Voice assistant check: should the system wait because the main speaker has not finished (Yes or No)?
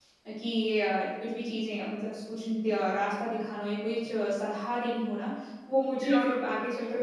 Yes